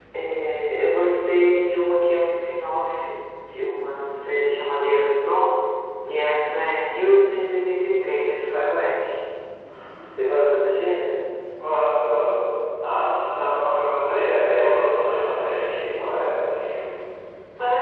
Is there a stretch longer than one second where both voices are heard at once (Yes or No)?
No